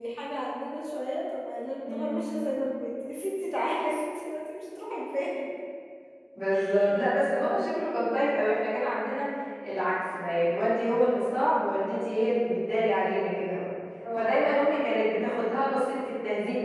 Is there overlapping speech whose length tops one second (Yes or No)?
No